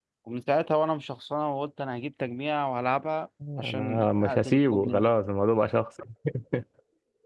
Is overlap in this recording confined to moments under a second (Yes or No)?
No